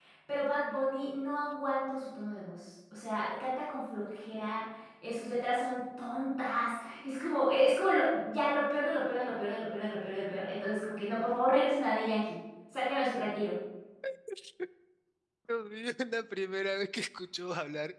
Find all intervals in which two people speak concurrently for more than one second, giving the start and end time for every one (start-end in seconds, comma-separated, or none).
none